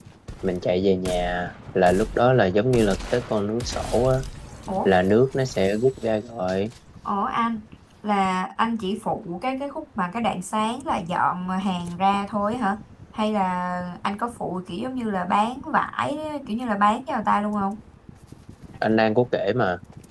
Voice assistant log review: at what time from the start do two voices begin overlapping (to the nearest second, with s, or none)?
none